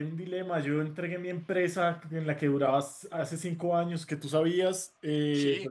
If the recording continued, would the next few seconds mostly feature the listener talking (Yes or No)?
No